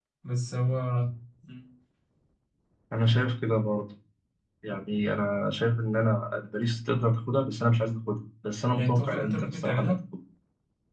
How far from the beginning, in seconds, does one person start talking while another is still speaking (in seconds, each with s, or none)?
8.7 s